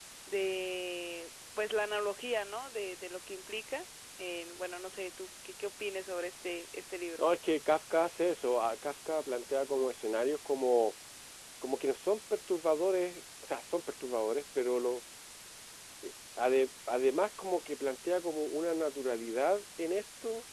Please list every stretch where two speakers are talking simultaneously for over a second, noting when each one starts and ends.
none

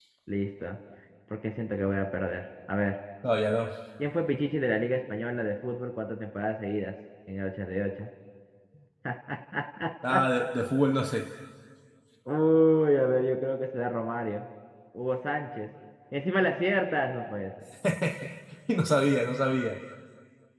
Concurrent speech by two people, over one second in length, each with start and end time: none

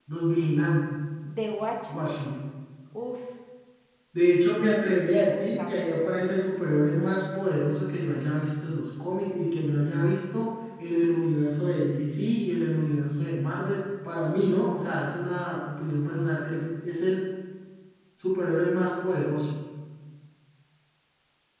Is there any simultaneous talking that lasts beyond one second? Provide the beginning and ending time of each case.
5.1-6.3

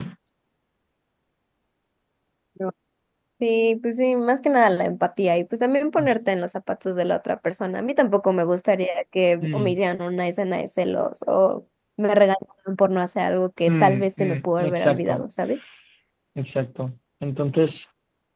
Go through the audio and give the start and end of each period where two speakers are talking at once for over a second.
13.7-15.2

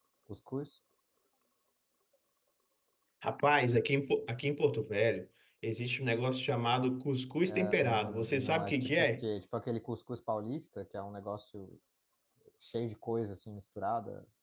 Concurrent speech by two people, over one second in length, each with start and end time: 7.5-9.2

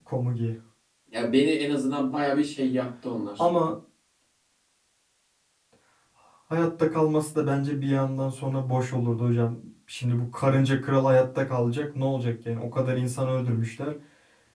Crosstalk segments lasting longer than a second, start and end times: none

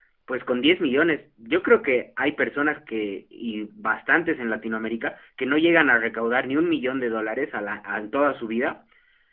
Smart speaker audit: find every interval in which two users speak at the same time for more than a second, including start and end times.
none

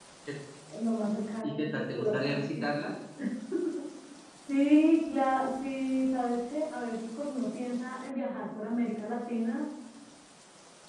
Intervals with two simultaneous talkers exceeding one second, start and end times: 1.4-2.9

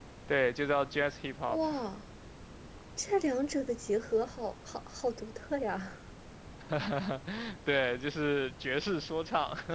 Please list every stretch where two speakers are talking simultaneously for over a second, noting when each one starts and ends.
none

